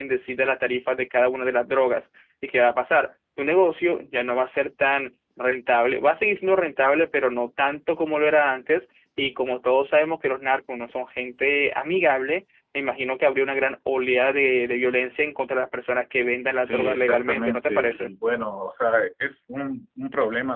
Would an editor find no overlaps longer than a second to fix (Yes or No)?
No